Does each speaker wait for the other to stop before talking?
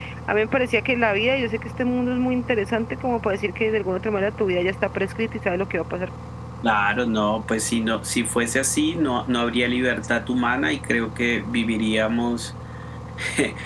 Yes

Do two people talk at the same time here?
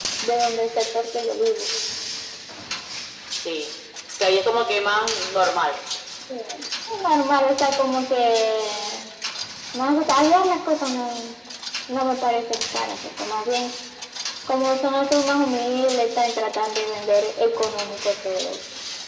No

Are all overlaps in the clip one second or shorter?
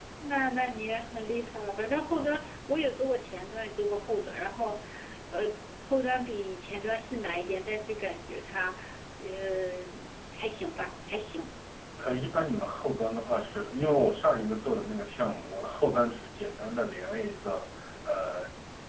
Yes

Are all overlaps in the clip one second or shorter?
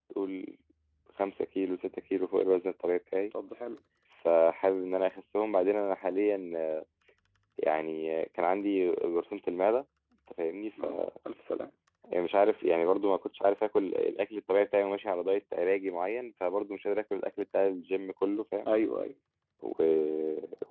Yes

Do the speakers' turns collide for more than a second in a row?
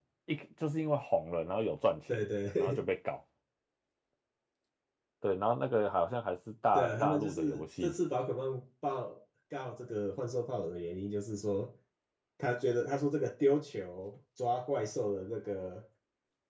Yes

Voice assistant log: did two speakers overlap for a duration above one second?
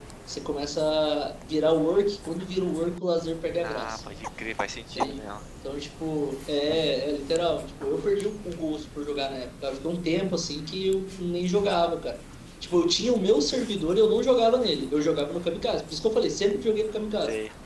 No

